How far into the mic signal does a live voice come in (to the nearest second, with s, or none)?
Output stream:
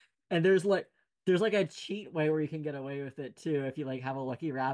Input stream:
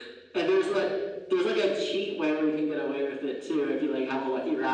none